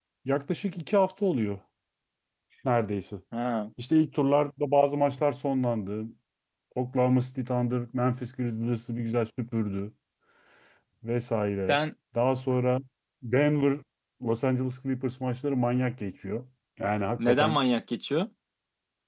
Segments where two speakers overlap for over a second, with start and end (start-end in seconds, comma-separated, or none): none